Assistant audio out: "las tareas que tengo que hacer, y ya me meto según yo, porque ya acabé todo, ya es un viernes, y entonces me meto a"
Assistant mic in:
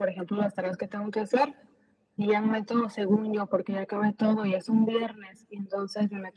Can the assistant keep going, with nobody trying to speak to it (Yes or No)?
Yes